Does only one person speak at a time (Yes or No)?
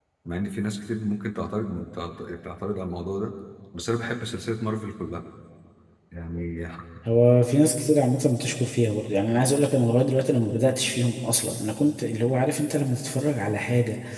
Yes